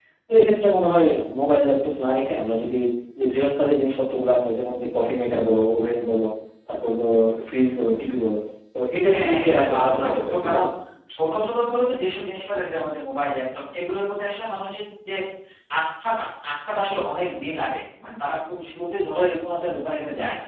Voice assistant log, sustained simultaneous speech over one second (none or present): present